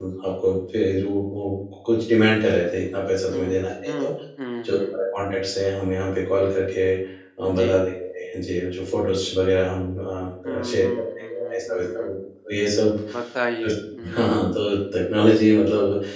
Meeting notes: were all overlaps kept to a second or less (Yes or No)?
No